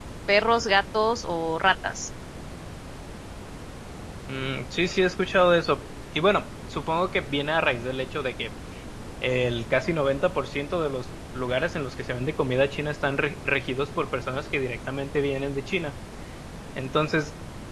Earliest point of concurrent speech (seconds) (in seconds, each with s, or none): none